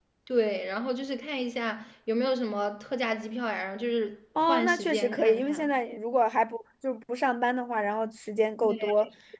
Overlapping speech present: Yes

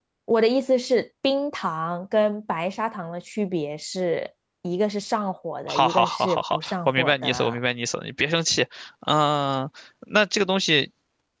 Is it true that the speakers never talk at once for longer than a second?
No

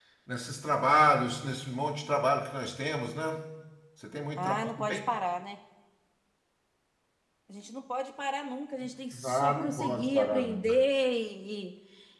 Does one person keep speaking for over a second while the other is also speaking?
Yes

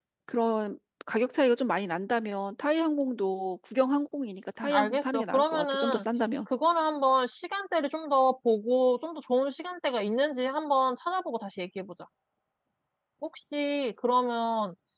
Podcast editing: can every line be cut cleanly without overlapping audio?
No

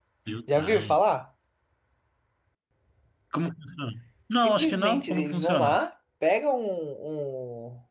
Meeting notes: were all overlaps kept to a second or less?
No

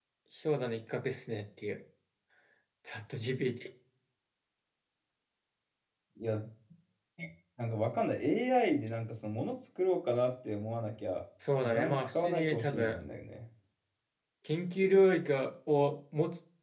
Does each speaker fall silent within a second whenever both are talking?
No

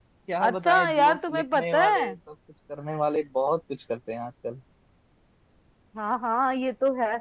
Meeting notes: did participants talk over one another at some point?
Yes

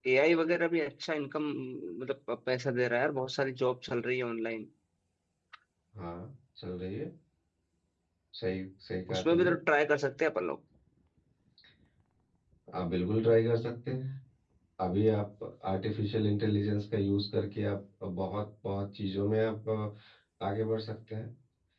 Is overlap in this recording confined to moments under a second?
Yes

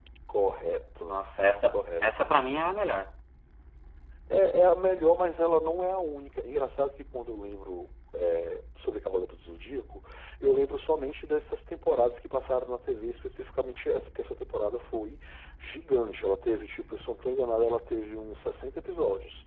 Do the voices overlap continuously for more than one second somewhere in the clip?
No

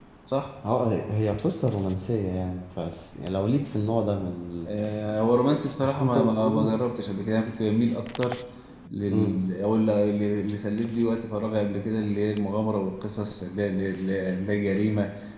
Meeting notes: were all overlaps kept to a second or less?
No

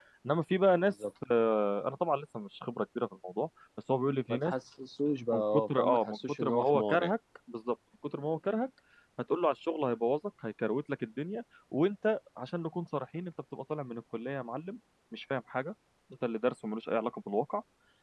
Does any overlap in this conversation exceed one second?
Yes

